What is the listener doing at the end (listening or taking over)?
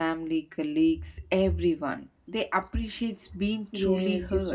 taking over